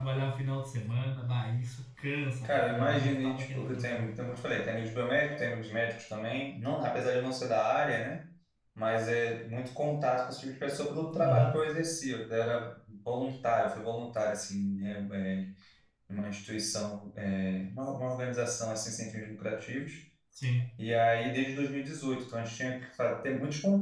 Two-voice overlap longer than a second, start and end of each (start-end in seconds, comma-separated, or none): 2.4-4.0